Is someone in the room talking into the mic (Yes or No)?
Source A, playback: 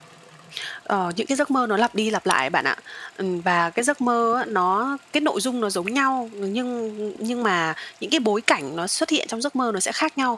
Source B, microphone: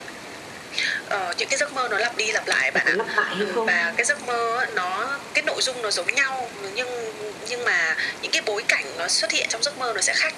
Yes